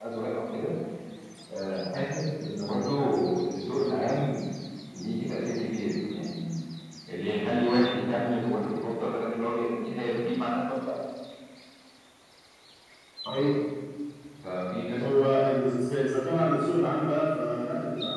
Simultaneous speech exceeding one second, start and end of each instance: none

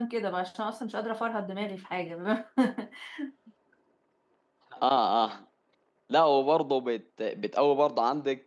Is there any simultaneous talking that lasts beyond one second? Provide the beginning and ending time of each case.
none

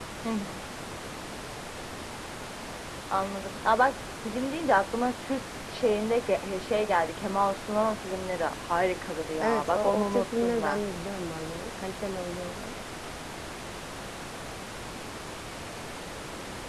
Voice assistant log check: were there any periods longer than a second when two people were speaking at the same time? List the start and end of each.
9.4-10.8

